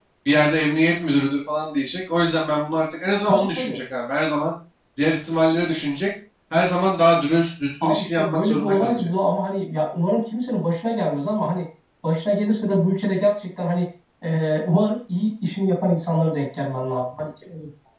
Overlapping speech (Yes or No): Yes